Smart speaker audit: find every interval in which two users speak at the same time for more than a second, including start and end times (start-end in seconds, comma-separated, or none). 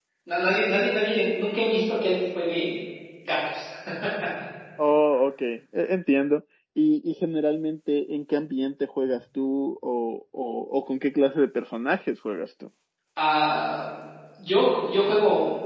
none